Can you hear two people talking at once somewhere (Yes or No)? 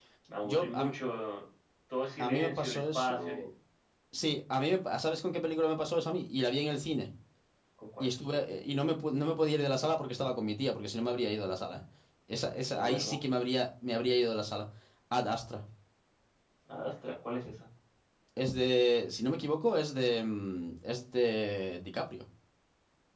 Yes